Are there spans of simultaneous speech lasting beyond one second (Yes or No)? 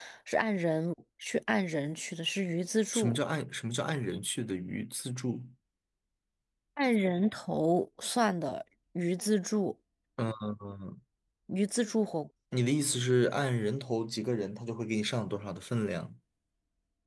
No